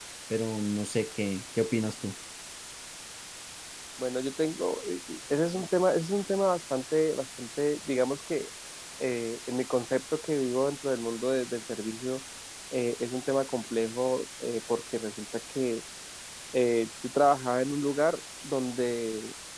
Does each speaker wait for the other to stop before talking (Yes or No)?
Yes